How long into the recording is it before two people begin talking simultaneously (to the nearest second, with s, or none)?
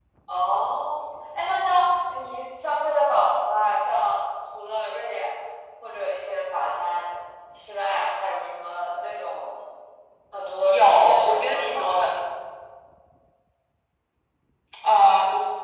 11 s